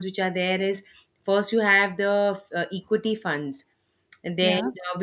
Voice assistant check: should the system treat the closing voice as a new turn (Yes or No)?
No